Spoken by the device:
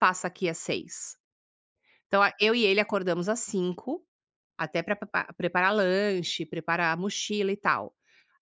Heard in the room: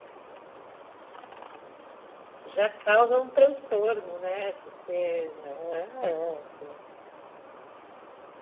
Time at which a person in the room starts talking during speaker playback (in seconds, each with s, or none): 2.4 s